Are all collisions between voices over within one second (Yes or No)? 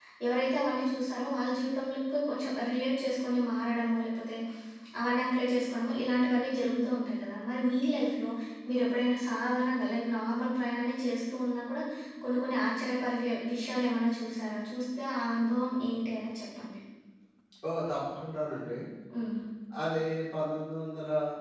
Yes